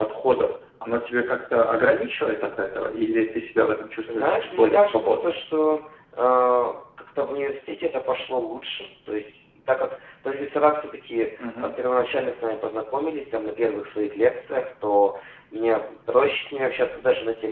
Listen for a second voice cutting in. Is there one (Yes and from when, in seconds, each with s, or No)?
Yes, from 4.1 s